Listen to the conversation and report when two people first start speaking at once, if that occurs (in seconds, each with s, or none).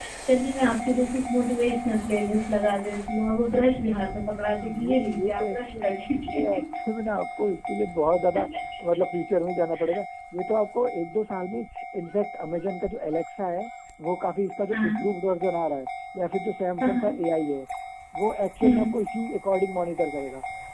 4.6 s